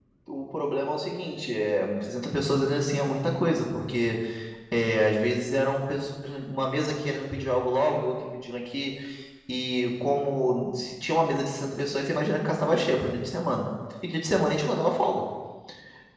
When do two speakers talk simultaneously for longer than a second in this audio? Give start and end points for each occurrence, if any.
none

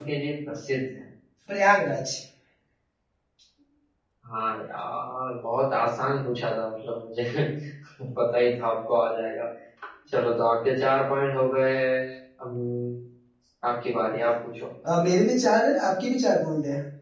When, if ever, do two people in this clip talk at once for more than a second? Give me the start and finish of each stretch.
none

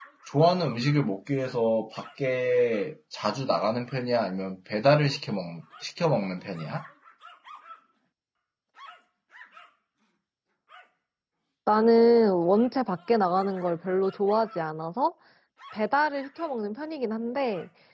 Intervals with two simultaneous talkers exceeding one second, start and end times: none

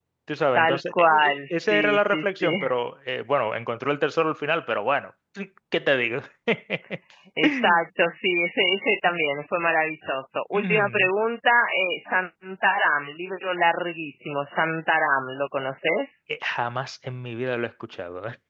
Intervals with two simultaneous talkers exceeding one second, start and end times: 0.6-2.6

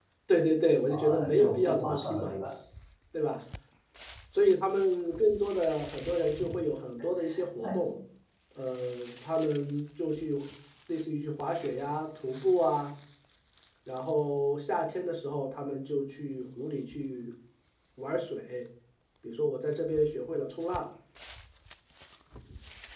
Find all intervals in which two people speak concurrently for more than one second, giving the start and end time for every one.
0.9-2.4

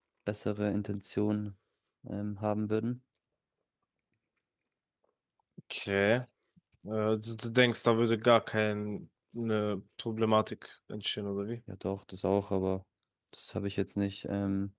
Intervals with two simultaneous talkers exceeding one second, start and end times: none

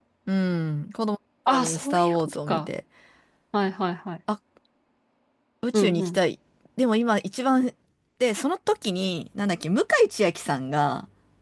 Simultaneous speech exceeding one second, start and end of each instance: 1.5-2.7

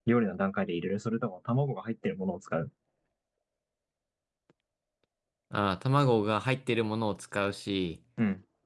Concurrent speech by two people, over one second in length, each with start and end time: none

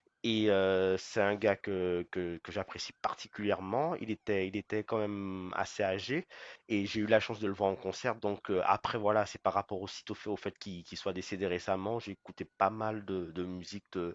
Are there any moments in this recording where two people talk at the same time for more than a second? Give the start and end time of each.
none

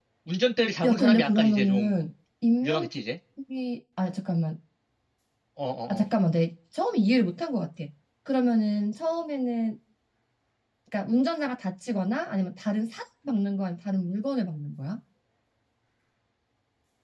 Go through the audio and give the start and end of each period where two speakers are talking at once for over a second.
0.8-2.1

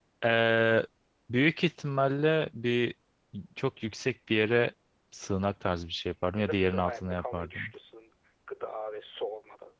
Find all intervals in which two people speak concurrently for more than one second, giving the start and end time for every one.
6.3-7.7

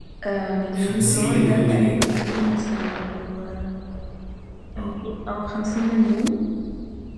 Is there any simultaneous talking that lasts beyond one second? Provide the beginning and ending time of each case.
0.7-2.0

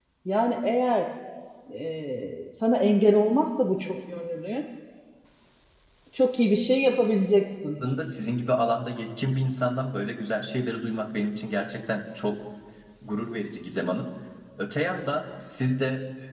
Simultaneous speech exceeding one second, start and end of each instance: none

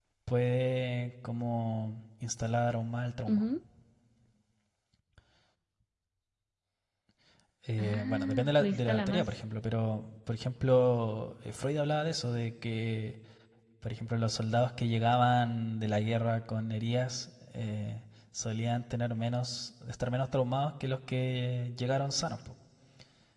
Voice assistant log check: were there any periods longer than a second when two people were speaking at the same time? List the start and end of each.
7.8-9.3

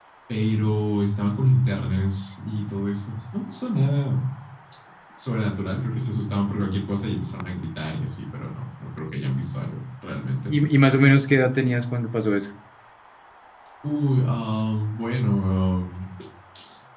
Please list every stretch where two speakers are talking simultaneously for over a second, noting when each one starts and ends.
none

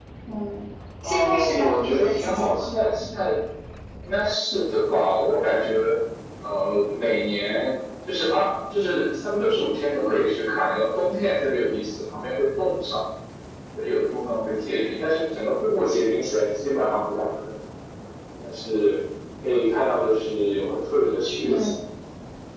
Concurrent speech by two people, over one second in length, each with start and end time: 1.0-2.7

